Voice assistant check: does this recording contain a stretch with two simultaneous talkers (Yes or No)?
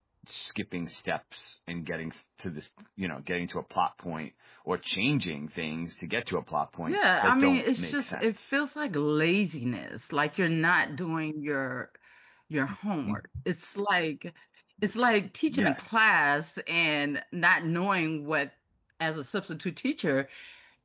Yes